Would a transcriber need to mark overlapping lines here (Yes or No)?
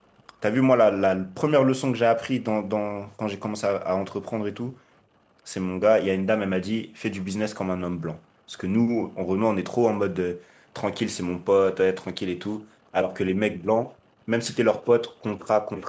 No